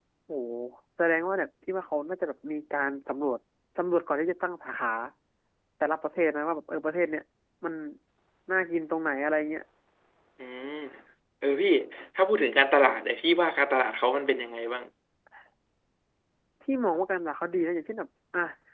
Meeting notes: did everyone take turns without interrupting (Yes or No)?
Yes